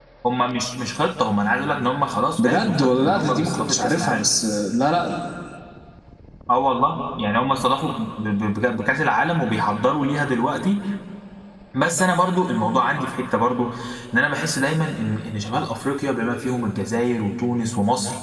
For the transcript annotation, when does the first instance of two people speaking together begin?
2.4 s

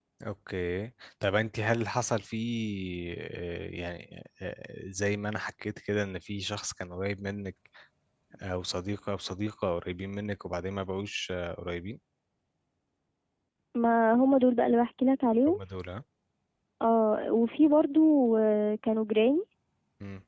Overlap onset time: none

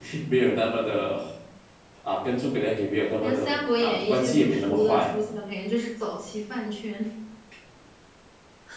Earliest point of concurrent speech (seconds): 3.2 s

